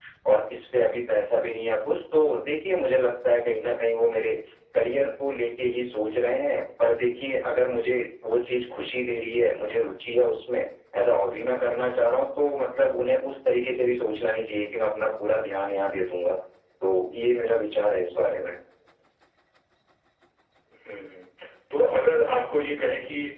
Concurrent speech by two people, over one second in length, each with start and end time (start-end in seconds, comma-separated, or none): none